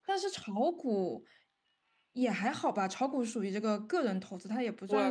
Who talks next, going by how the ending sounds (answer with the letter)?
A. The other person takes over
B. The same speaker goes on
A